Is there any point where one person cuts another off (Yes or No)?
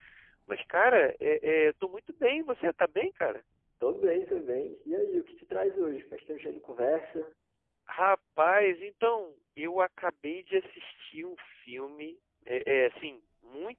No